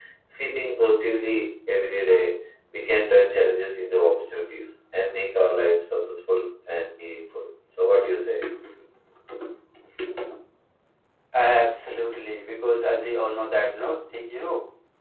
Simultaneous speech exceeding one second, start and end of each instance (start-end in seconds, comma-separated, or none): none